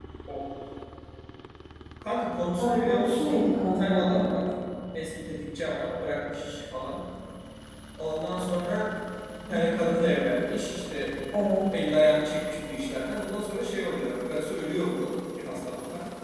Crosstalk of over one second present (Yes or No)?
Yes